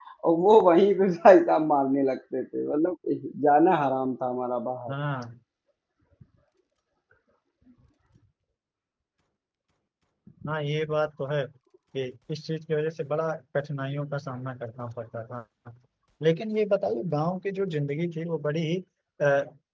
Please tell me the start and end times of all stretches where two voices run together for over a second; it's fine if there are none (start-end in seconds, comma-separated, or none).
none